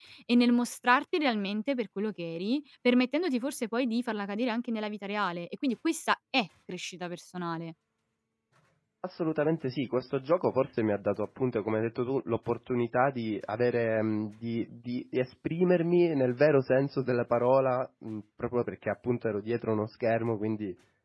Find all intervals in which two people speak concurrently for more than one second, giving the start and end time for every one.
none

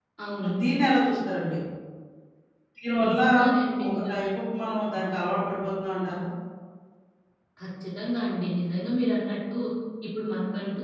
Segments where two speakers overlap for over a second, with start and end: none

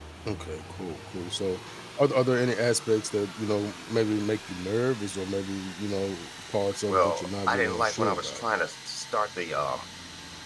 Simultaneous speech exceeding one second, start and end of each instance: 6.9-8.4

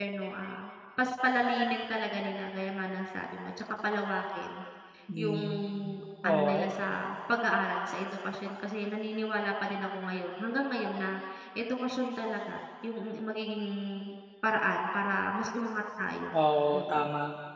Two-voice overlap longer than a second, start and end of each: none

